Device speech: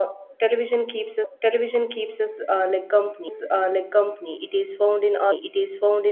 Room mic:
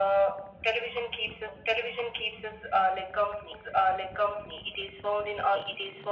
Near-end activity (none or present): none